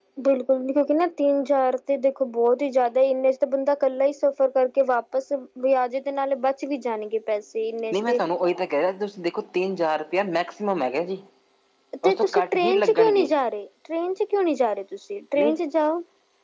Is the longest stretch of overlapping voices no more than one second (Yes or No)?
No